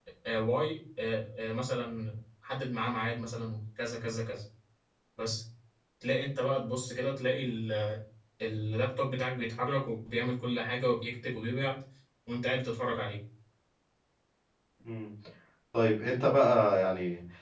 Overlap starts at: none

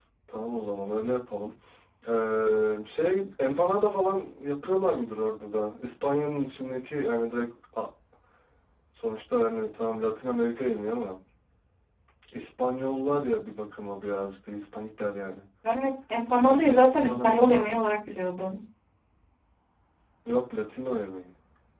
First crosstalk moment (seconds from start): 16.4 s

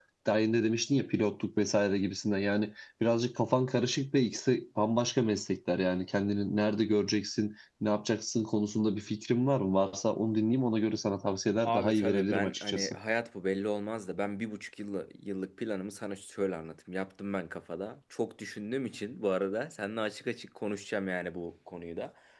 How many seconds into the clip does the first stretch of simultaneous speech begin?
11.6 s

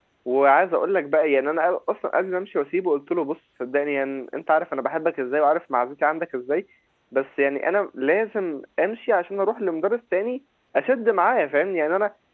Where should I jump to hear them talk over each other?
none

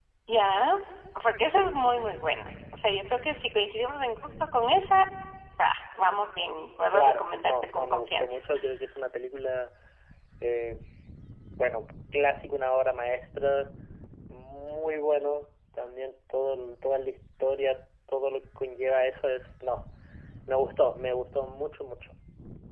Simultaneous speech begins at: 6.9 s

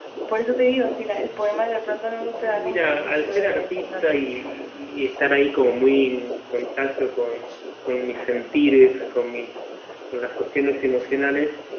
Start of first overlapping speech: 2.3 s

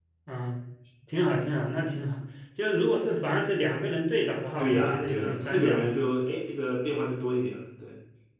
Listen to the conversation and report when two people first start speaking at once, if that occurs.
4.6 s

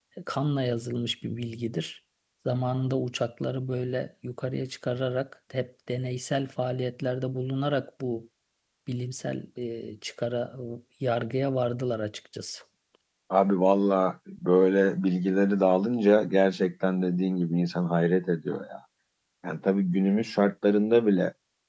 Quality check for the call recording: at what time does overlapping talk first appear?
none

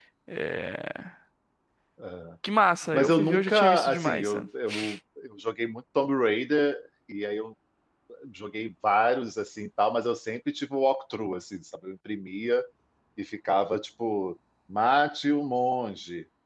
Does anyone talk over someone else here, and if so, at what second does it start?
2.9 s

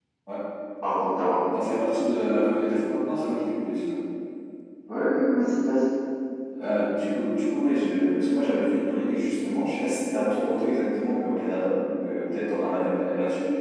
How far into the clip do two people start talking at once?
none

